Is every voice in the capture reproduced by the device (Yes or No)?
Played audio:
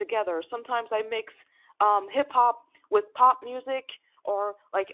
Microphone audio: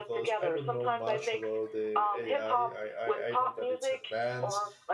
No